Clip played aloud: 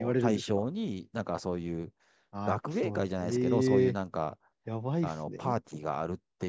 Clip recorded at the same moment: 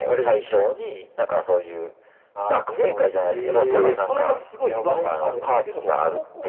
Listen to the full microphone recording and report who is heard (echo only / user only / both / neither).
both